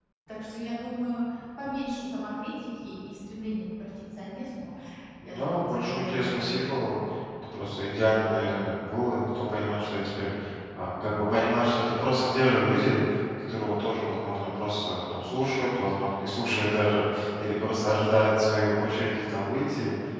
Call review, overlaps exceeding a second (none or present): present